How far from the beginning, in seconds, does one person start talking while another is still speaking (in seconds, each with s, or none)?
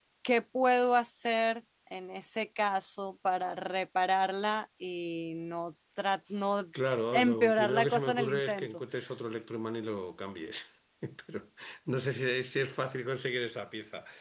7.1 s